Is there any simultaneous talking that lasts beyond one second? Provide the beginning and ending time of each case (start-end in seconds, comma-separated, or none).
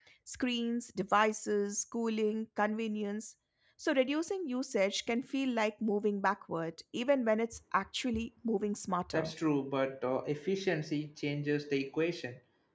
none